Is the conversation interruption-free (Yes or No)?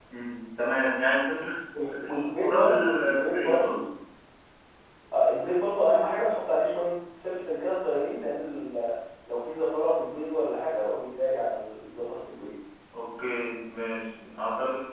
No